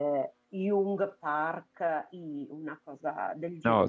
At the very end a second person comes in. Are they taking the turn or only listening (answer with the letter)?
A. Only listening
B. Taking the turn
B